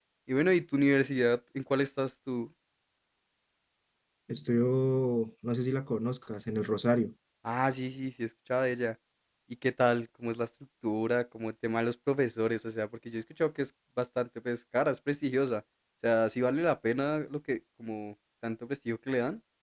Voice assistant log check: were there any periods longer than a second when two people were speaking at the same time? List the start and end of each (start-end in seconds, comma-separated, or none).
none